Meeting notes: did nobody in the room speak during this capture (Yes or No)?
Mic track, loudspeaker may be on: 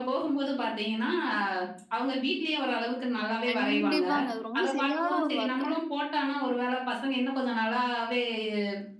No